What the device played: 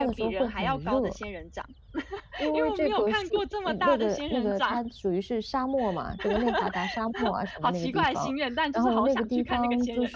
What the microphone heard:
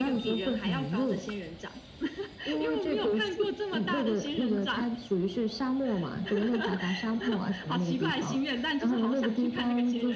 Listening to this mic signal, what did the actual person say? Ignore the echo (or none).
none